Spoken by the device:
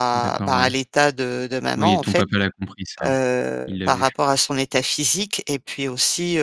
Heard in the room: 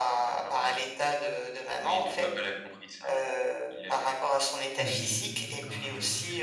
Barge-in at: 4.8 s

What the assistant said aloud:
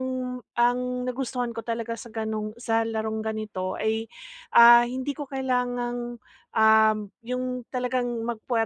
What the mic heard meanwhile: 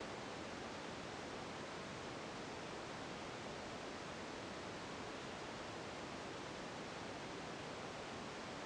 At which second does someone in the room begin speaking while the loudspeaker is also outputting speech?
none

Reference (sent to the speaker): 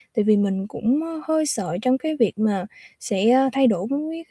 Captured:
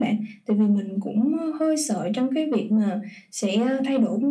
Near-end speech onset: none

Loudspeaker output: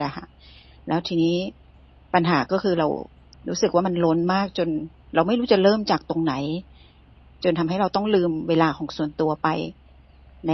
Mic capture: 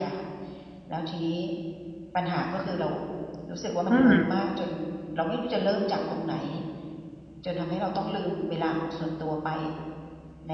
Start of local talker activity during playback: 3.9 s

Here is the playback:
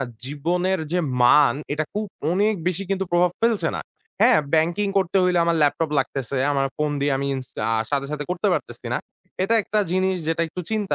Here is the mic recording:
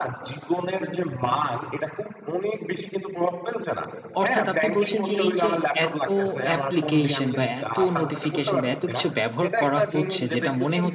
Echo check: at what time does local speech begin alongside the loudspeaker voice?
4.2 s

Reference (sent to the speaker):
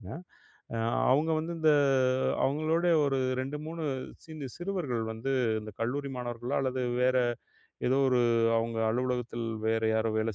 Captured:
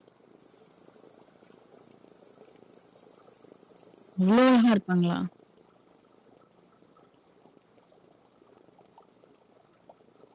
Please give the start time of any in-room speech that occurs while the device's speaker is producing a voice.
4.2 s

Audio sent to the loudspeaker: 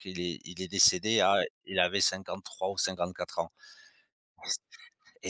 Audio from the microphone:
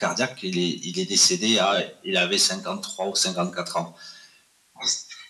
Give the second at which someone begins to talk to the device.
none

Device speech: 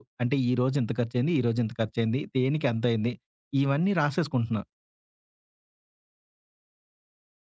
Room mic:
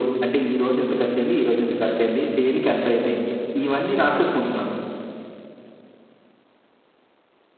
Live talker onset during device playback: none

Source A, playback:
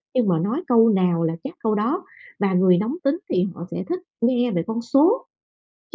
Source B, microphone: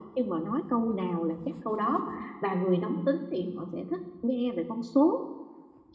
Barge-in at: none

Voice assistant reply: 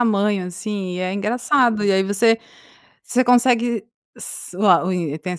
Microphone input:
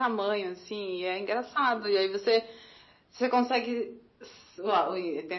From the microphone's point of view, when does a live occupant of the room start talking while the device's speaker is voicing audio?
none

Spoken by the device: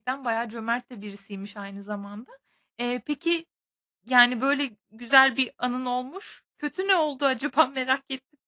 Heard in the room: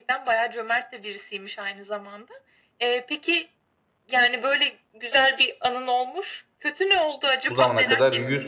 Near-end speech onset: 7.5 s

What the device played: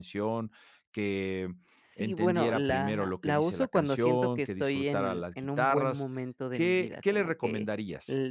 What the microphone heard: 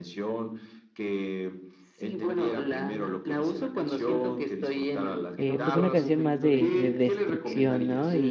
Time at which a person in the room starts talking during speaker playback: 5.4 s

